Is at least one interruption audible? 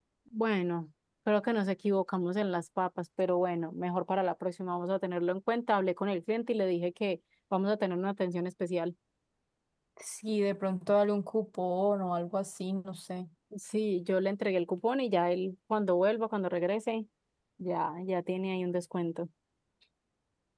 No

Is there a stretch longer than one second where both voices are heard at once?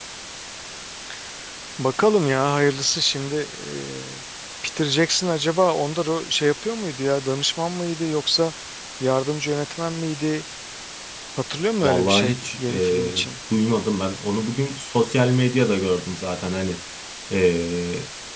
Yes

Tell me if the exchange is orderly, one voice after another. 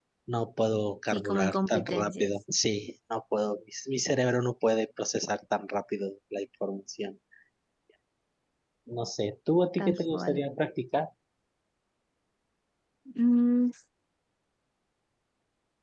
No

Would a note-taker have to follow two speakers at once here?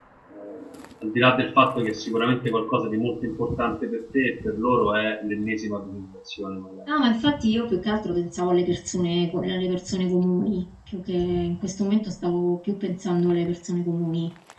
No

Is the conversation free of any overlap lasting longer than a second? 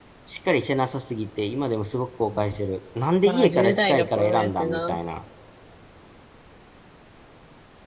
No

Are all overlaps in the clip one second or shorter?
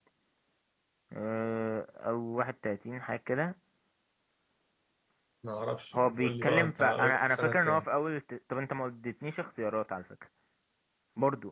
No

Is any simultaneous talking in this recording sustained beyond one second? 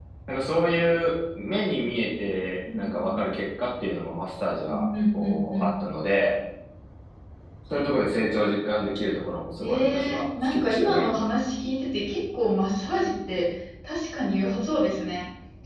Yes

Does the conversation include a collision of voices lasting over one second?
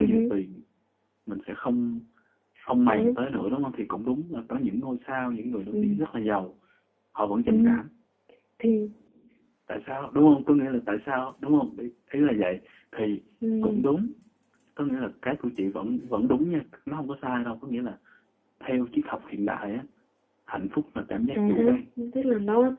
No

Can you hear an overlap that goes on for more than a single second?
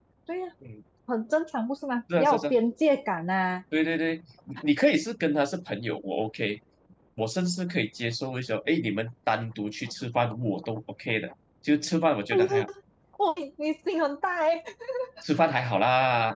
No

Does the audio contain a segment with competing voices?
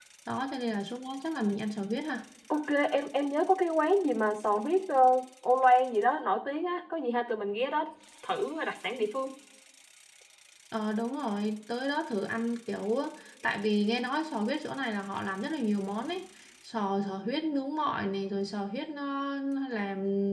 No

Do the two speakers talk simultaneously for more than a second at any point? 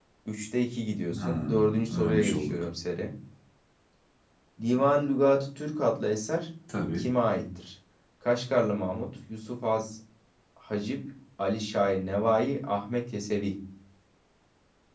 Yes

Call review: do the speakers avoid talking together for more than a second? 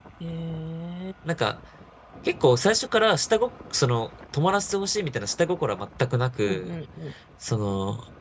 Yes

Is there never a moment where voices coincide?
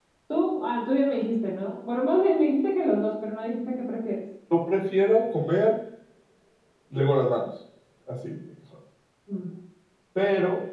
Yes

